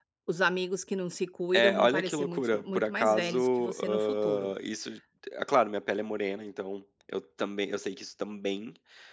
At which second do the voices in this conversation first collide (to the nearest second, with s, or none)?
2 s